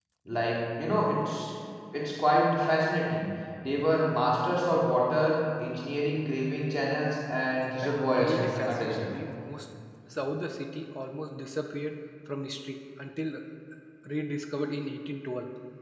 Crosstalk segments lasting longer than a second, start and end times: 7.8-9.1

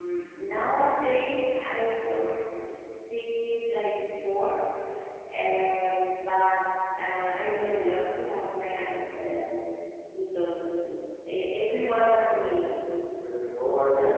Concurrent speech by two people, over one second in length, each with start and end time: none

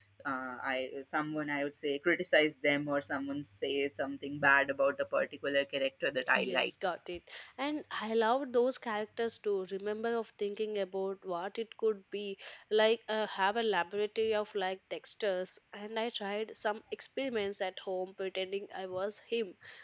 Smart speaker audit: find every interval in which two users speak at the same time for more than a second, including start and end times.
none

